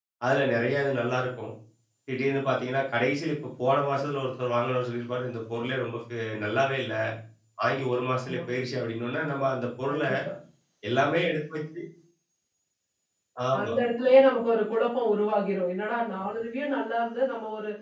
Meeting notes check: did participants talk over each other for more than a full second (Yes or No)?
No